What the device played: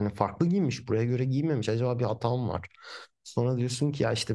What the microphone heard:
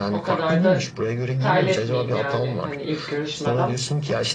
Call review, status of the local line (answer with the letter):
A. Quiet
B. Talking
B